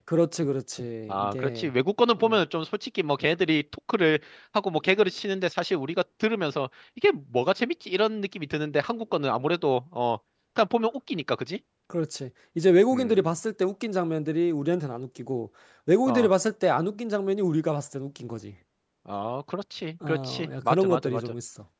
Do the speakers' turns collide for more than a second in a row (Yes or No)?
Yes